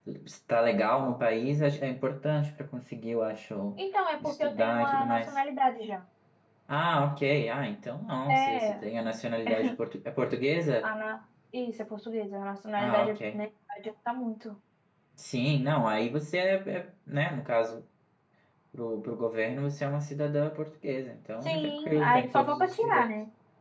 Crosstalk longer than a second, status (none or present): present